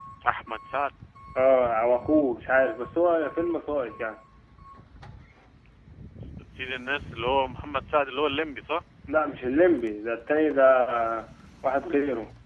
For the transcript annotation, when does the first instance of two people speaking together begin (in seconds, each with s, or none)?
none